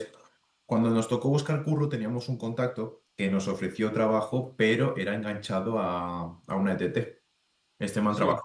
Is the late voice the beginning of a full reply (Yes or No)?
No